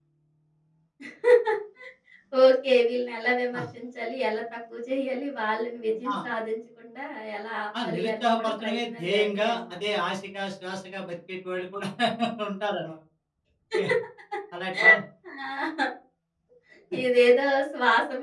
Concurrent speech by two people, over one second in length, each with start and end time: 7.8-9.6

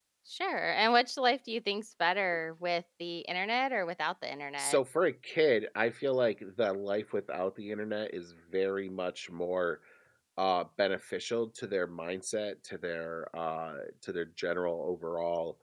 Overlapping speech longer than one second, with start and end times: none

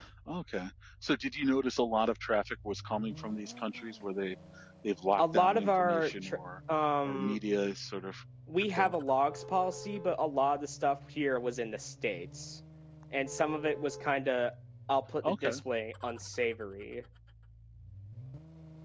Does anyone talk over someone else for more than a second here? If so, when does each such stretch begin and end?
5.2-6.4

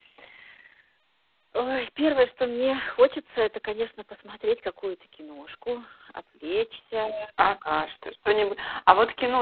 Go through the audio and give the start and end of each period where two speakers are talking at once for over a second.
none

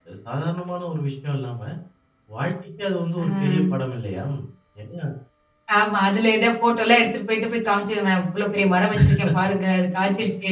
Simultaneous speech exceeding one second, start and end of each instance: none

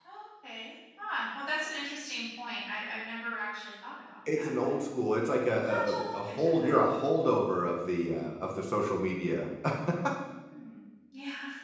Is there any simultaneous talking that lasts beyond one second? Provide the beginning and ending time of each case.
5.5-6.8

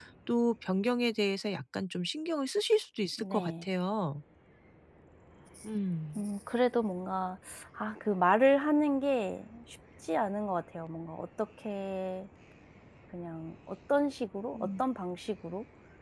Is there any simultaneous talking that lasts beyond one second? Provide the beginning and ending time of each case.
none

